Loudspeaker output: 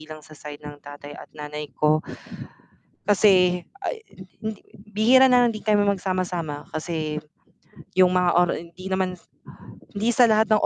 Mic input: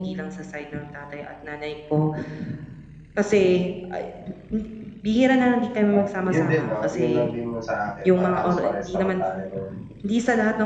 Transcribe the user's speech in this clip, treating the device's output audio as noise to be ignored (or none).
ah, 'yun din 'no, 'yun lang din 'yung sa akin para halos parehas naman tayo ng